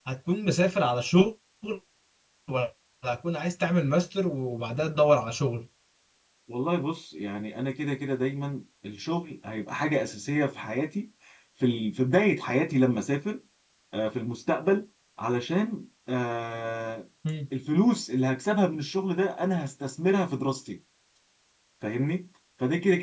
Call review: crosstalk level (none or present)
none